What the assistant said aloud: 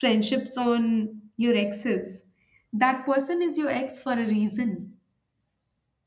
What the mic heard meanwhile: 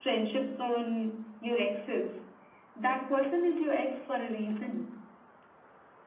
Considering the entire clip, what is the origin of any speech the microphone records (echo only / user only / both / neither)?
echo only